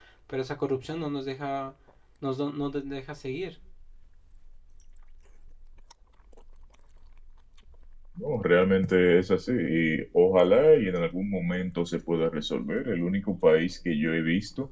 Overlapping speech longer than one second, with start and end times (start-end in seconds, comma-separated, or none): none